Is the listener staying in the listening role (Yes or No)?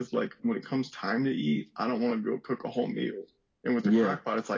Yes